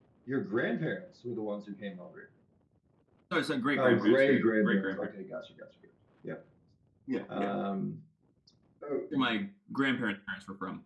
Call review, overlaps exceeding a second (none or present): present